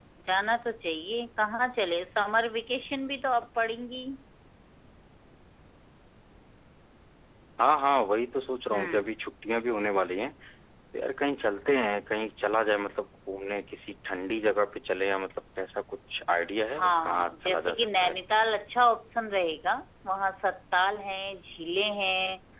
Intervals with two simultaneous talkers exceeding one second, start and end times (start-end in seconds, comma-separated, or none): 16.8-18.2